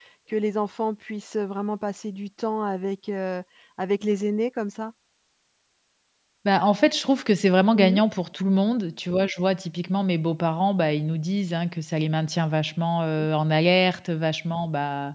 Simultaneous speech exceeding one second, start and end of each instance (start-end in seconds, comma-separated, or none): none